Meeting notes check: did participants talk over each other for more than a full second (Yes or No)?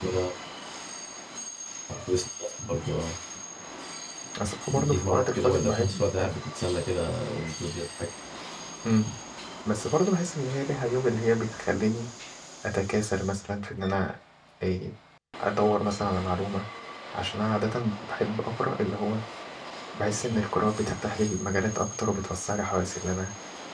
Yes